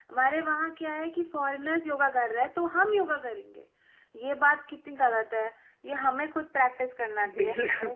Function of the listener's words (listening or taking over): listening